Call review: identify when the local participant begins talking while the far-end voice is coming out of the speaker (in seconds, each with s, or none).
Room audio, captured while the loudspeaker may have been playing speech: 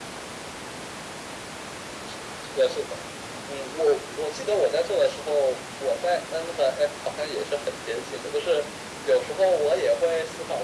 none